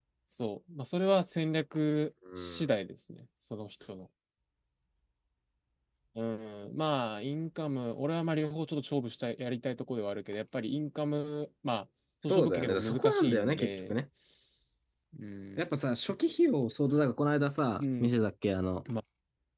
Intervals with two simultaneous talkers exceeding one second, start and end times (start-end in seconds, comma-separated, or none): 12.2-13.9